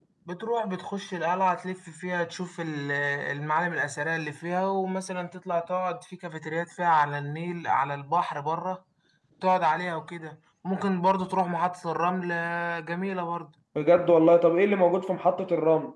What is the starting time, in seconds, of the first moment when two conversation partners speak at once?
none

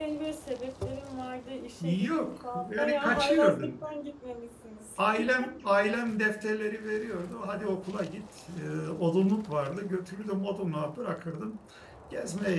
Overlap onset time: 2.0 s

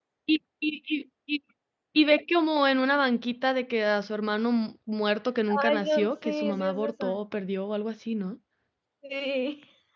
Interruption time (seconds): 5.5 s

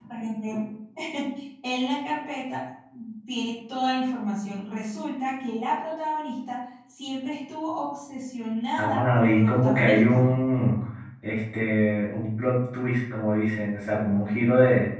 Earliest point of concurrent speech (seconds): 8.8 s

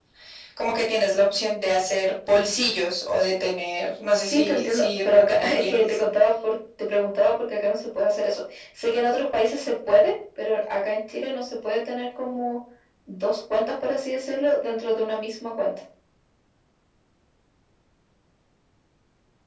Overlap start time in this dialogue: 4.2 s

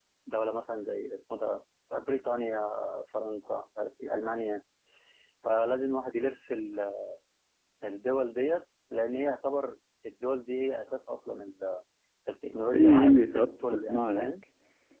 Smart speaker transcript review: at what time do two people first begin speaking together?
12.7 s

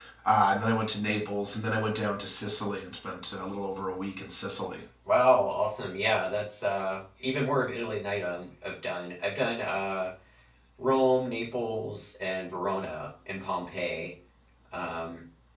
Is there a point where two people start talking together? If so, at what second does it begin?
none

